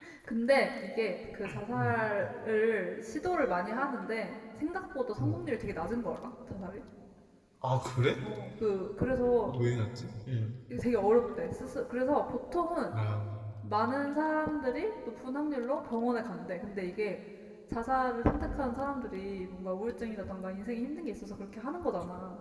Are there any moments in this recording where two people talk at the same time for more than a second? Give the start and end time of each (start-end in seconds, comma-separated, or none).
none